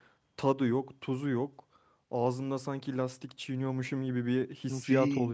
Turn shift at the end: Yes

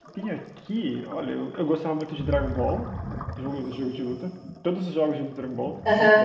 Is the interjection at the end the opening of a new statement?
Yes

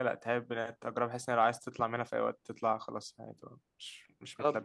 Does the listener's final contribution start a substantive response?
Yes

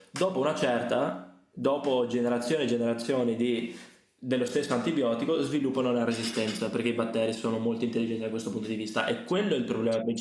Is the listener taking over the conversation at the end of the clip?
No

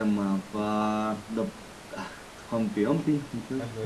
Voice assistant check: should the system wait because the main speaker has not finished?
No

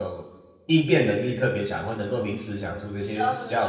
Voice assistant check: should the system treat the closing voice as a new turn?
Yes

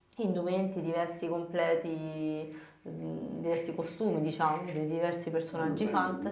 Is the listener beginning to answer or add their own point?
Yes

